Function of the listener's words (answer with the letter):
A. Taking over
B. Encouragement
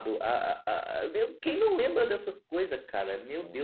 B